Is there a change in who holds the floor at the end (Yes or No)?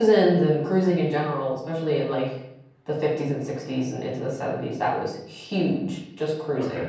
No